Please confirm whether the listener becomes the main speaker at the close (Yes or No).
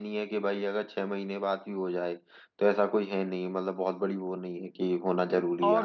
Yes